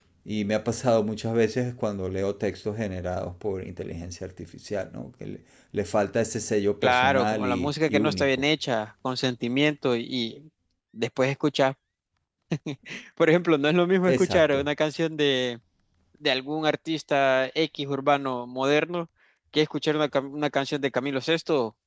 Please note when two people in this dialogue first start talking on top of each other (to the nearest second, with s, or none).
7 s